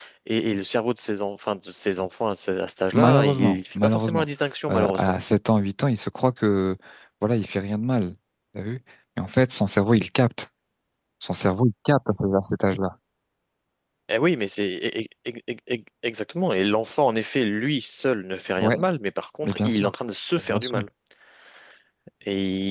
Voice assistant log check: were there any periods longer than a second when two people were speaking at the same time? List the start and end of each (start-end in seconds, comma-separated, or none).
2.9-4.2